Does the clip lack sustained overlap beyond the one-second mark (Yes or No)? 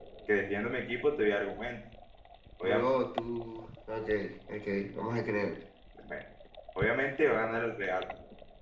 Yes